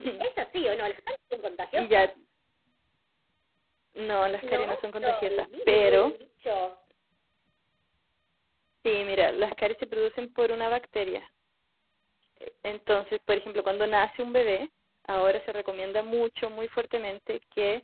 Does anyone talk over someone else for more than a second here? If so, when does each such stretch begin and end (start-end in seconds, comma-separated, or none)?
4.4-6.1